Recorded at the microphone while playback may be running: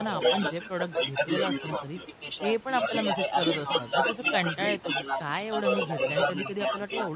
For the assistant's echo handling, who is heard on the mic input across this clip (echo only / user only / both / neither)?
both